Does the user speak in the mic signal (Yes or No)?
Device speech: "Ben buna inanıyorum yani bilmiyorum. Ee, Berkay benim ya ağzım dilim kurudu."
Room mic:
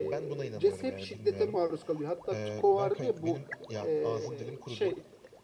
Yes